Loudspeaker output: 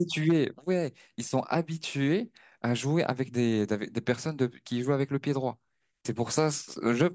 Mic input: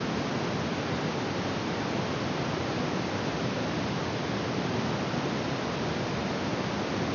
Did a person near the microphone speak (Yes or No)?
No